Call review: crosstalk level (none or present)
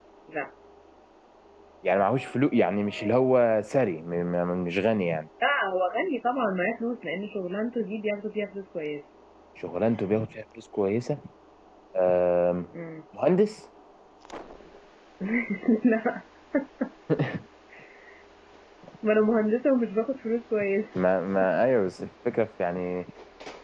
none